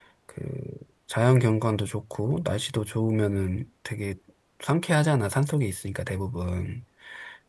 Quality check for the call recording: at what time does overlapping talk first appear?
none

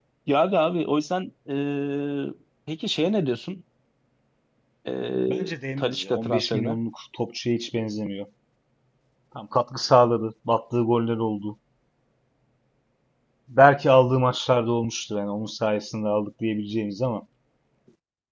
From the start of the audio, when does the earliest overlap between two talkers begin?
5 s

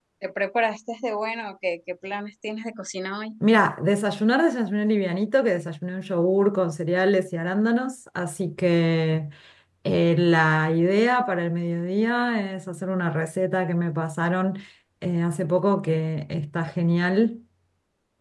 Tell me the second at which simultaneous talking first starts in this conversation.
none

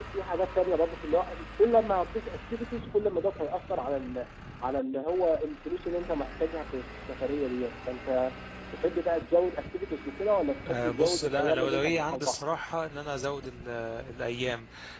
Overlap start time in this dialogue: 11 s

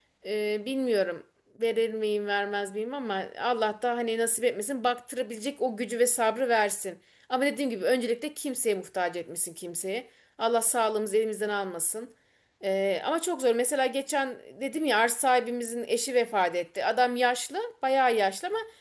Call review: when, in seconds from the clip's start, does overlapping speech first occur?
none

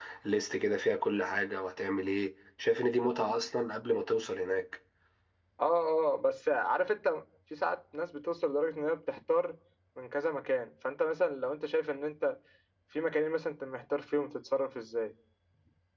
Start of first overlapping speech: none

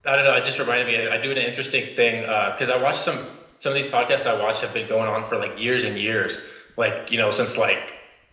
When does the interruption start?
none

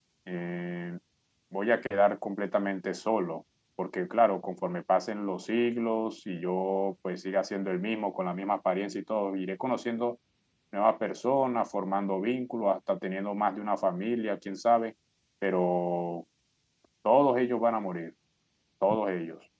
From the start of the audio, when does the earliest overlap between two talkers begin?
none

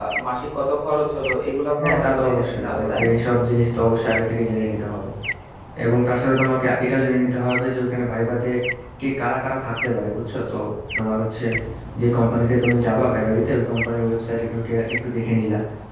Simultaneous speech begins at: 2 s

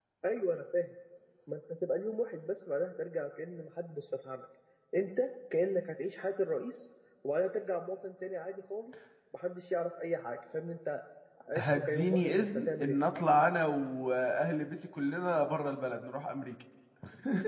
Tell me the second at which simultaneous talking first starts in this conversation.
12 s

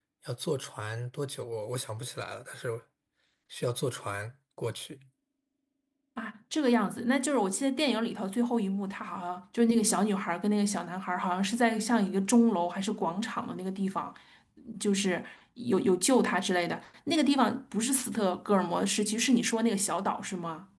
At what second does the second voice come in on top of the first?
none

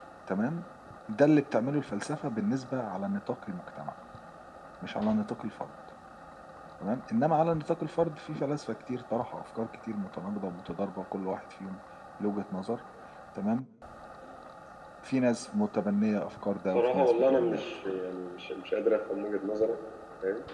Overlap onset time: 17 s

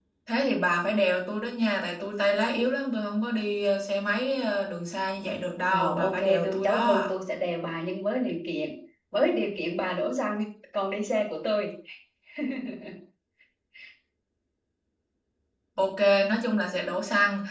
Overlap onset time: 6 s

